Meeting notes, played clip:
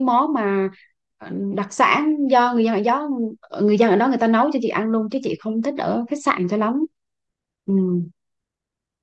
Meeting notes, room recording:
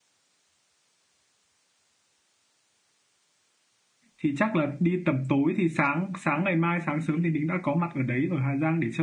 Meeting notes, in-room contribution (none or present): present